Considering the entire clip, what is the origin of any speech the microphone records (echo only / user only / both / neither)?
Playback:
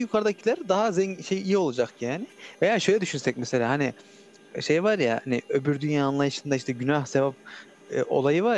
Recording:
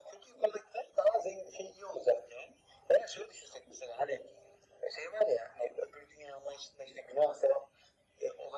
echo only